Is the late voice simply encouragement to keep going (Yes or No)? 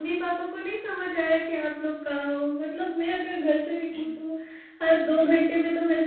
Yes